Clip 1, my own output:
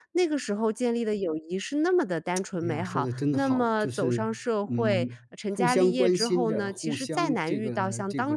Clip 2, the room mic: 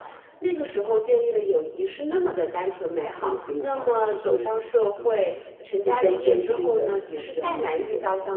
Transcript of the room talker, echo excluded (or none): 嗯。